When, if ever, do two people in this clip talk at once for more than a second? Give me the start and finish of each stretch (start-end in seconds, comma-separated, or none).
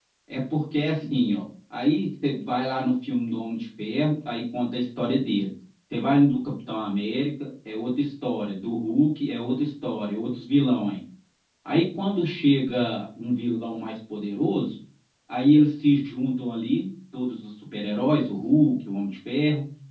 none